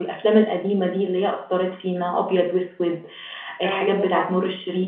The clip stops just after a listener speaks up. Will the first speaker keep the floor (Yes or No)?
Yes